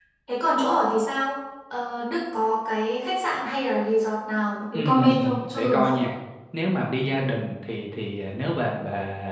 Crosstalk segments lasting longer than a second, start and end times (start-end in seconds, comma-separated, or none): 4.7-6.0